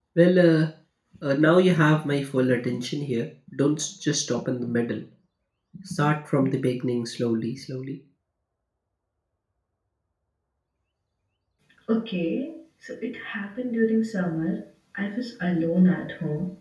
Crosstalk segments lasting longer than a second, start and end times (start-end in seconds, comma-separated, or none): none